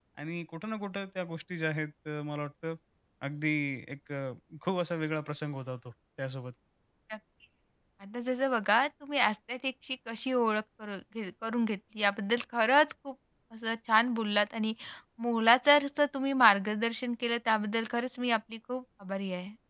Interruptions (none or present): none